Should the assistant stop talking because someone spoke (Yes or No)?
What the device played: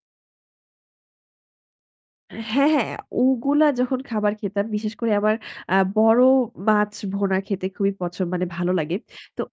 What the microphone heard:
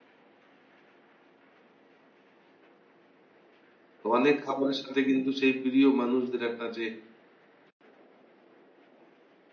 Yes